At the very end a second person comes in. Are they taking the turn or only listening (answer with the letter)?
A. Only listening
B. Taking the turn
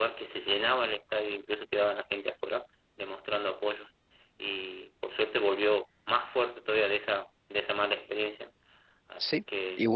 B